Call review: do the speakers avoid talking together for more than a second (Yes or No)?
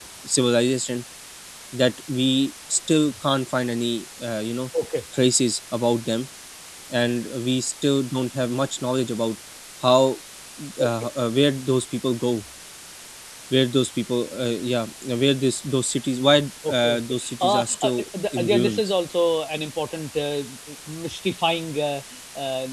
No